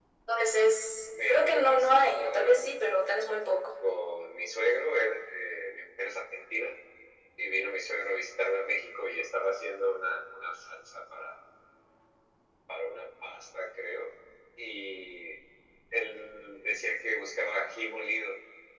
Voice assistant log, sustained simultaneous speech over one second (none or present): present